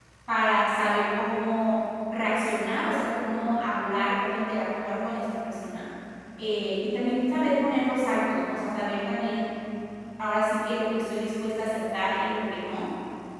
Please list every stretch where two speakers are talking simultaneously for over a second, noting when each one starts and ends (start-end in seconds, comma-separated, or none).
none